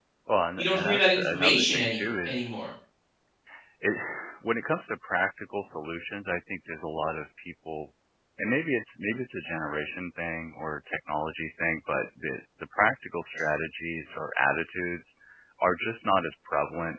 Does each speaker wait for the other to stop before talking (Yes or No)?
No